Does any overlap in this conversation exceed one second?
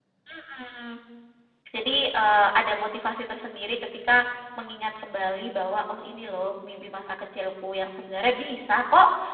No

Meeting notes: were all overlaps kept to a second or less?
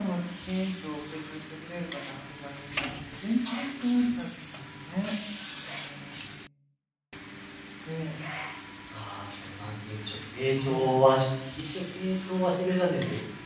Yes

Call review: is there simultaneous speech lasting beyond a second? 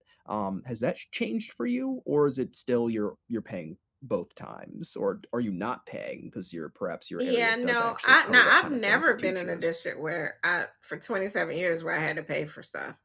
Yes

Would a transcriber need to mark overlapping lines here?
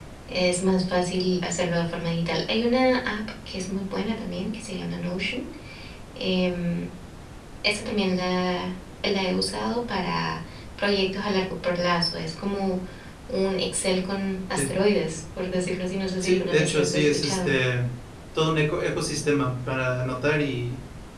Yes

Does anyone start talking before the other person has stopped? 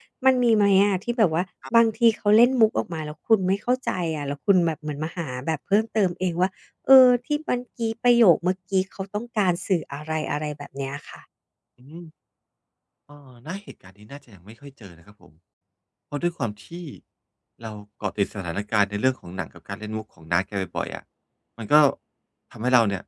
No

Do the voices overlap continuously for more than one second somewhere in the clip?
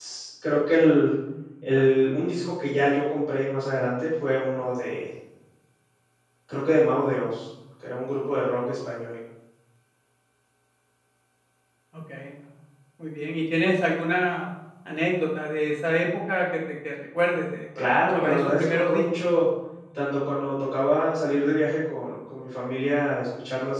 Yes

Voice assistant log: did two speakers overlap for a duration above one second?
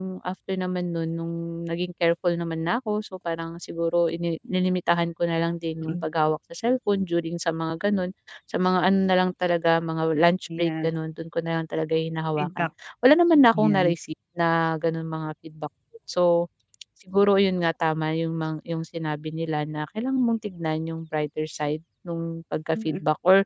No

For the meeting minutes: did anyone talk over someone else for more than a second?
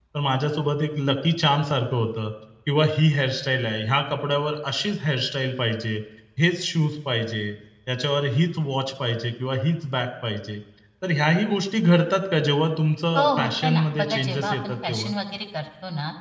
Yes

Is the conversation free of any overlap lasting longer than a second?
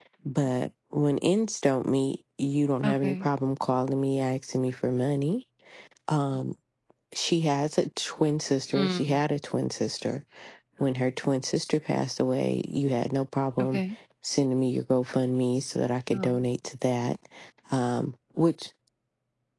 Yes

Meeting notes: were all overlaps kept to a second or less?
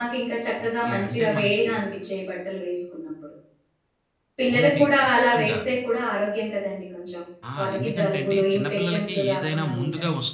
No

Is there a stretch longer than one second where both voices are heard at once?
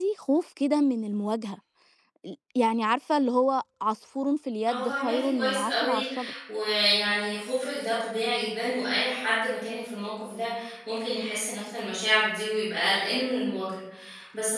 Yes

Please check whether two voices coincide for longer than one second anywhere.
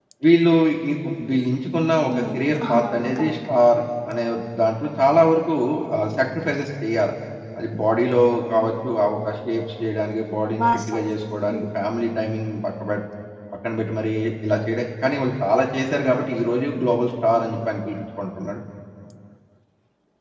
Yes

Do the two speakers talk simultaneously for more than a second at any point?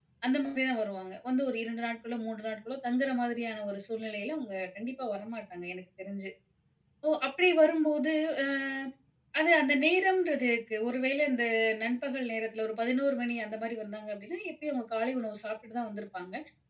No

